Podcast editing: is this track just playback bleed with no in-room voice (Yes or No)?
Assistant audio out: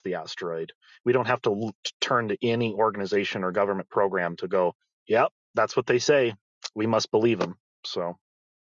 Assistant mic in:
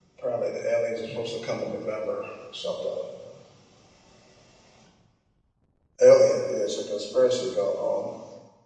No